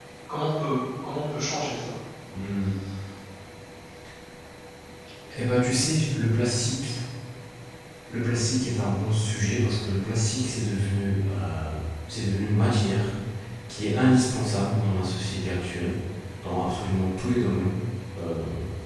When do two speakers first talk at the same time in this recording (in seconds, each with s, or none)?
none